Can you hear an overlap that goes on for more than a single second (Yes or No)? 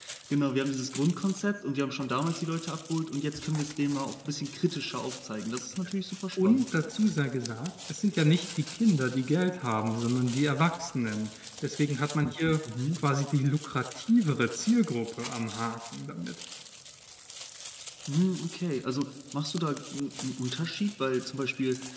No